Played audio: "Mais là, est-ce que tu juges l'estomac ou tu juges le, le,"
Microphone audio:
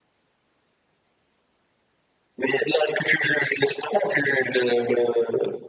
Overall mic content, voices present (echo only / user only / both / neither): echo only